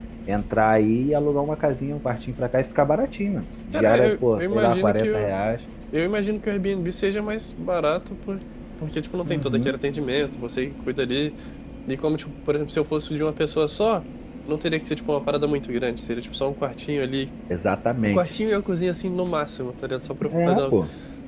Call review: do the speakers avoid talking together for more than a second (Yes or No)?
No